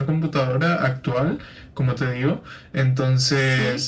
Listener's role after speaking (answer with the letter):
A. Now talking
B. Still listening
B